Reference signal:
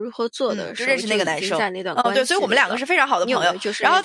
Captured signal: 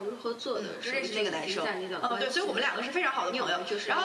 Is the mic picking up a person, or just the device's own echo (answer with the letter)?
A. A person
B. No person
B